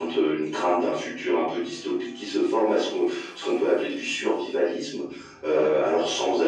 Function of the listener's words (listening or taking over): listening